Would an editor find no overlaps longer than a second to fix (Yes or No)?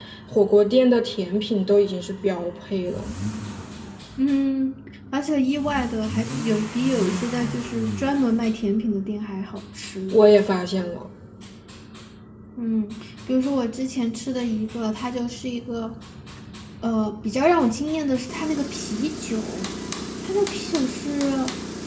Yes